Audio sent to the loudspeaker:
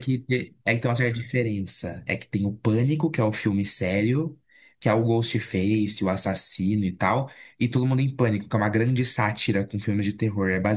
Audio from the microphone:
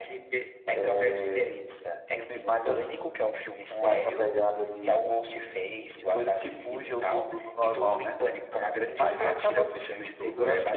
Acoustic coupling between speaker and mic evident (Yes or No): Yes